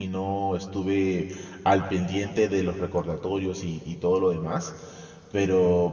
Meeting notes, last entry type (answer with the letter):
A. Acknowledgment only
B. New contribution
A